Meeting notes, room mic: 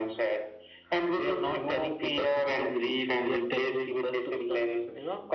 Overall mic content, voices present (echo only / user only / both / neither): echo only